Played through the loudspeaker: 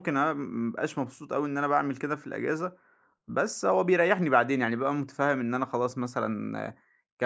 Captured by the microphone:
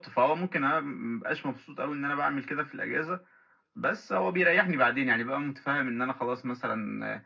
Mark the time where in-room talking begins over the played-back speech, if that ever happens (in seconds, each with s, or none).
none